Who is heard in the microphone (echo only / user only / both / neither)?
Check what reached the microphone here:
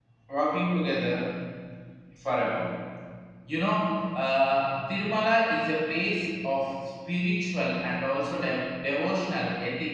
user only